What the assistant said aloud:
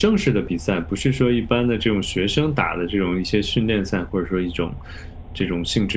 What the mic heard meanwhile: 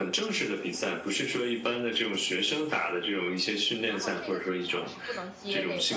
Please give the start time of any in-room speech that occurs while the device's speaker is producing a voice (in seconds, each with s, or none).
3.8 s